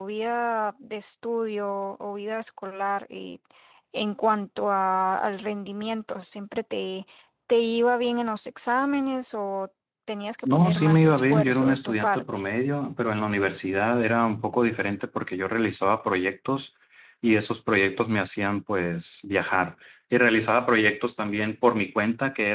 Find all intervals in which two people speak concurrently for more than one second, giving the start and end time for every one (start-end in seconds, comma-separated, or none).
10.4-12.2